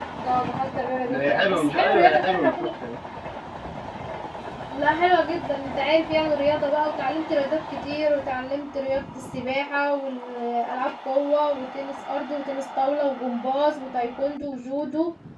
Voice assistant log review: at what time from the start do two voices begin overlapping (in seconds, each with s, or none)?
1.1 s